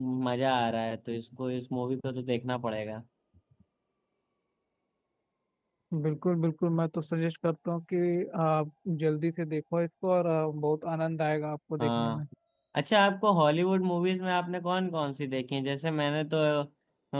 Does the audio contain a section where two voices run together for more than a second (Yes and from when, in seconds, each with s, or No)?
No